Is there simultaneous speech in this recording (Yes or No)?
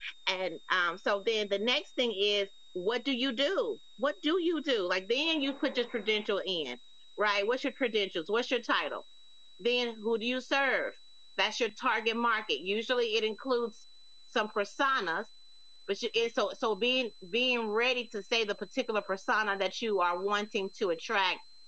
No